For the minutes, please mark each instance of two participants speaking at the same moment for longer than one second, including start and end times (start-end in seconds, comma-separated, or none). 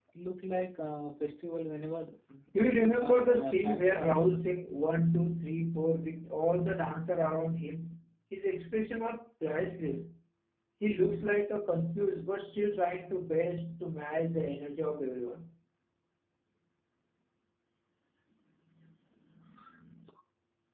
3.0-4.2